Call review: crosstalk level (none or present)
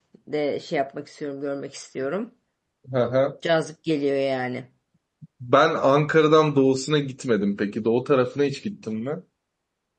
none